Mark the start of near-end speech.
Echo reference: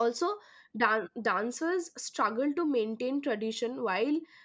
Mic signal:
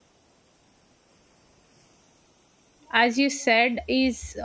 2.9 s

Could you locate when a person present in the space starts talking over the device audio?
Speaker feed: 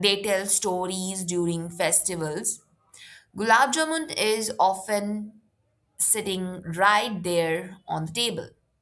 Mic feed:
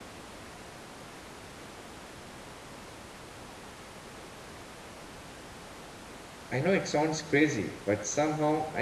6.5 s

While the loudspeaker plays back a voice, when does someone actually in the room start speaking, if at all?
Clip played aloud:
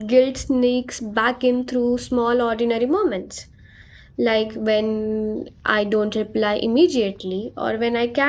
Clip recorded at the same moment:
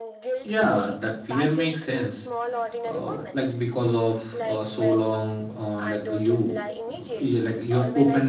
0.4 s

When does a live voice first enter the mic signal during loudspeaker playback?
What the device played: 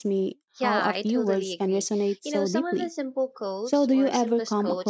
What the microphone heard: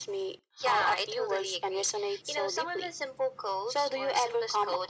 none

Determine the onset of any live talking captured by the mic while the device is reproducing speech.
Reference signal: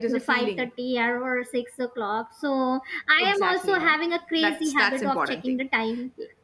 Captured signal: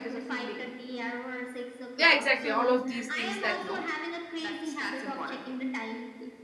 2.0 s

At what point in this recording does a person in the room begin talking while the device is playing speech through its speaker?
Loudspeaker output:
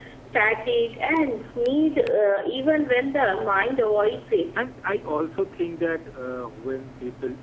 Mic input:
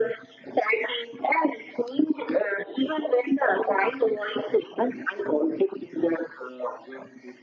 none

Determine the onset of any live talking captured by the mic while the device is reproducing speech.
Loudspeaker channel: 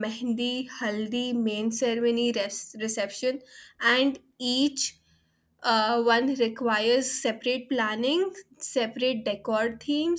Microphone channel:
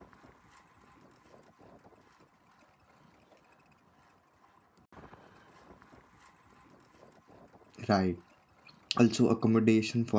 7.9 s

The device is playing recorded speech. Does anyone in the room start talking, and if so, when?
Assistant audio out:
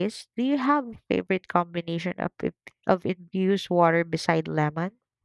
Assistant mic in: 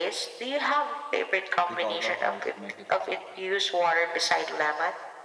1.6 s

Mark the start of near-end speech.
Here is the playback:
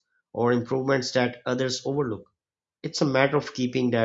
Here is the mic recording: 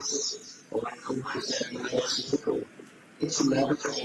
none

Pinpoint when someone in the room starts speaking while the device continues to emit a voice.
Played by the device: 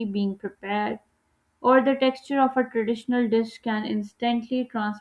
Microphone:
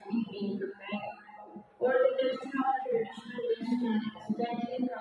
none

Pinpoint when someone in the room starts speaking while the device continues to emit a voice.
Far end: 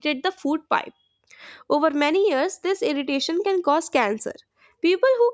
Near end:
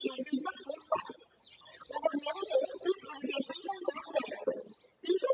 none

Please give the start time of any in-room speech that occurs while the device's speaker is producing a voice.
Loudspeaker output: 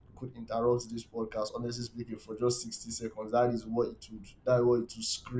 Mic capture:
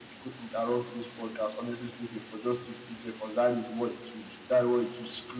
none

